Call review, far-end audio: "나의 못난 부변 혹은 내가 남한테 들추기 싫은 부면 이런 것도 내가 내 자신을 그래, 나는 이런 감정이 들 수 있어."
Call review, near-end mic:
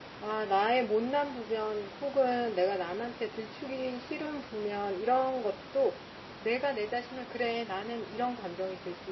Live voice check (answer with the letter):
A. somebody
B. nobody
B